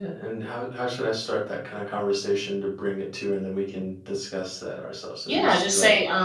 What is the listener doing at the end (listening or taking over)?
taking over